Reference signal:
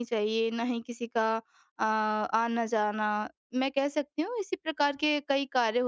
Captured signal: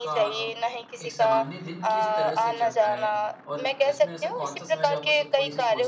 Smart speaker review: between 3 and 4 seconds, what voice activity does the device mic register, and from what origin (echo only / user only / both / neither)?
both